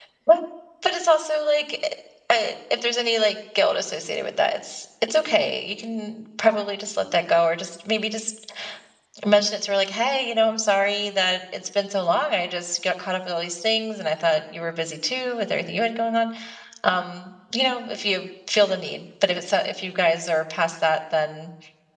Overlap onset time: none

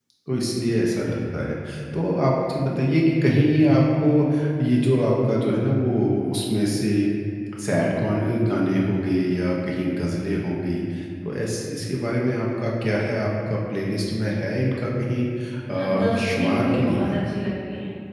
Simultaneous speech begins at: 15.7 s

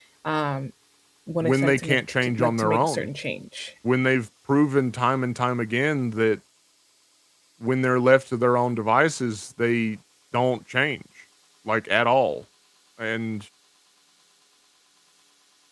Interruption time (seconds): 1.4 s

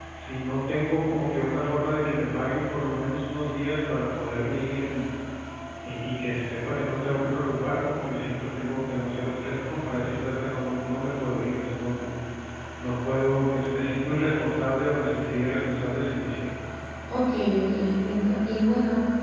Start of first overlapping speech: none

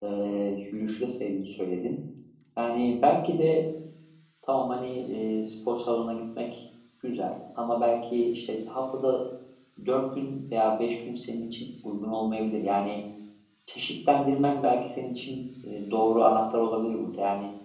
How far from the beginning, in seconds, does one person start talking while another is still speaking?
none

